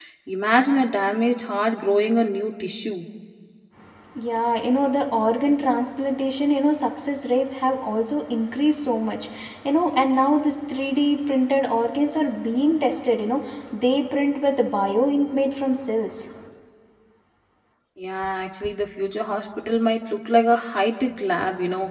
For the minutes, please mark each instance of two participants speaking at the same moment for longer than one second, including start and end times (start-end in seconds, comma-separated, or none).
none